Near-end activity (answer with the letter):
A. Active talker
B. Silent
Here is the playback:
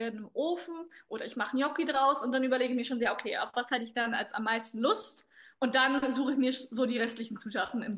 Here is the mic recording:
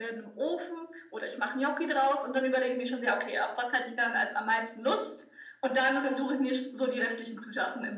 B